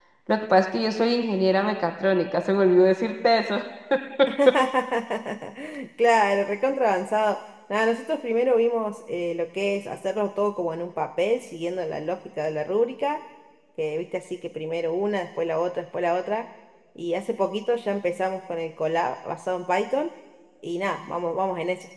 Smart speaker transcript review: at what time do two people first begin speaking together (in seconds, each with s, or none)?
none